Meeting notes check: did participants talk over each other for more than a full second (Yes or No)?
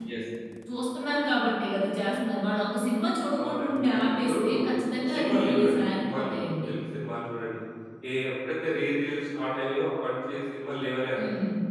Yes